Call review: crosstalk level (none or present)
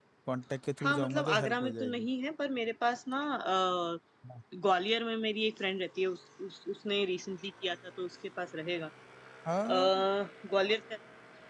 present